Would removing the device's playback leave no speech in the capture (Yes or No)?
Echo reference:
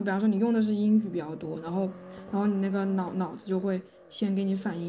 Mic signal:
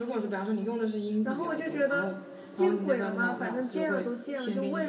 No